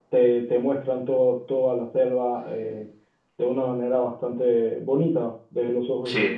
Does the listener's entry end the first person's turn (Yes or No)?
Yes